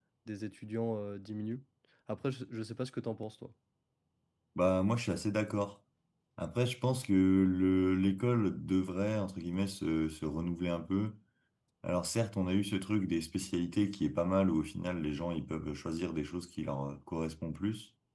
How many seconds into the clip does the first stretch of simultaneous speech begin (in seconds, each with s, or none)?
none